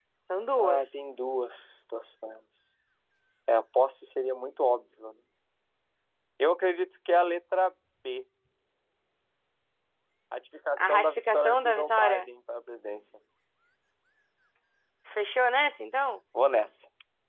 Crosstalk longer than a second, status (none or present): present